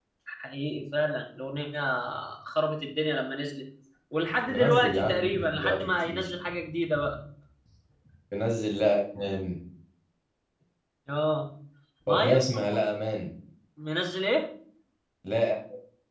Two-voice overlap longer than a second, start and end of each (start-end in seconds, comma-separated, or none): 4.5-6.3